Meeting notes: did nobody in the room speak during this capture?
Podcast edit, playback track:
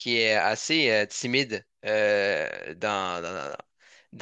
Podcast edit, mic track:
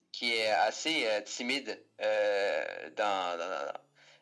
Yes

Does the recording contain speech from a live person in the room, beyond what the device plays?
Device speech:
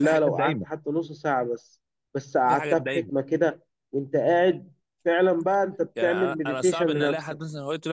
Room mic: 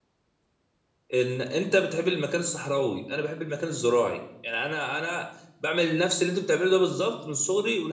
Yes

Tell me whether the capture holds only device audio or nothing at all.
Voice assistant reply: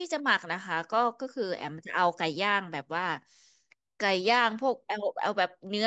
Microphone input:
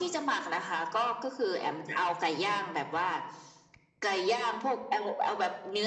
Yes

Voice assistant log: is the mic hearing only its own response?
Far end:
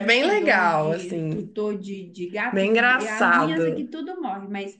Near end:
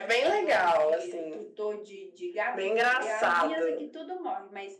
Yes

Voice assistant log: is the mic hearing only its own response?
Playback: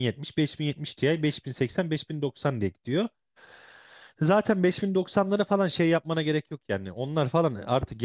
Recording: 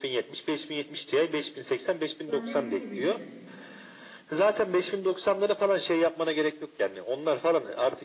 No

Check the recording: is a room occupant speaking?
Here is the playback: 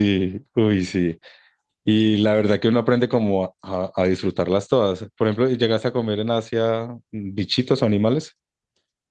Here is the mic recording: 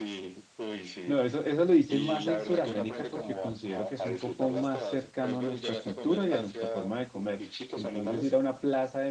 Yes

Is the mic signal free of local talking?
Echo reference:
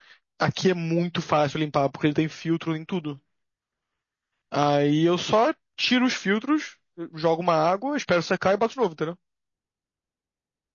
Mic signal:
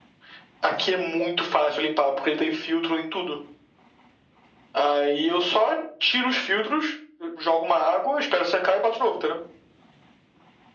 Yes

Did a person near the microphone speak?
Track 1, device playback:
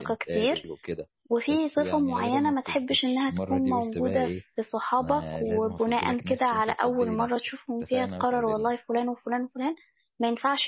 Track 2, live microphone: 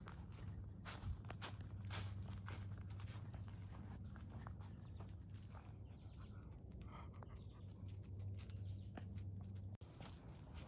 No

